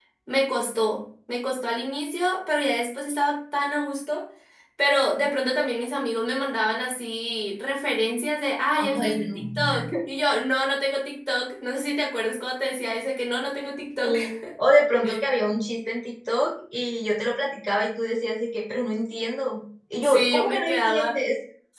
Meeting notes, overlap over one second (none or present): present